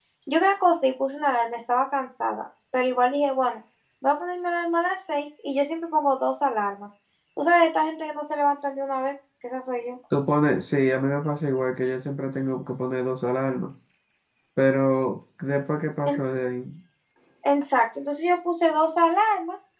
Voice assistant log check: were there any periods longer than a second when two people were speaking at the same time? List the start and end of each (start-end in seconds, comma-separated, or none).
none